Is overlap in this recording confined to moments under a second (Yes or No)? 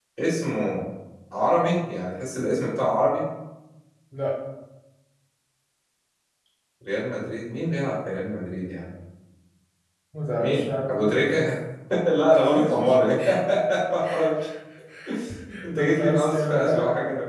No